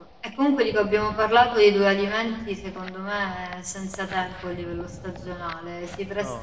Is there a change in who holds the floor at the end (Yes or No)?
No